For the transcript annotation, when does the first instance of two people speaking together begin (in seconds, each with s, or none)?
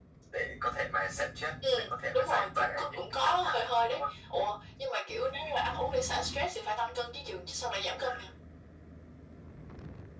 1.6 s